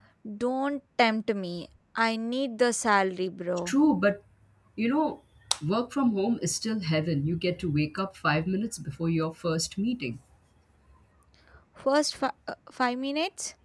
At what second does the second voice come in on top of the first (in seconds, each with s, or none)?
none